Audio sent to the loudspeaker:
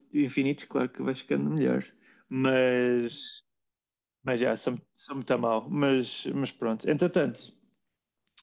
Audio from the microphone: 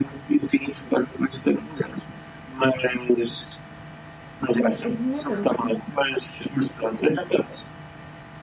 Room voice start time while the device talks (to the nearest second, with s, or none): 5 s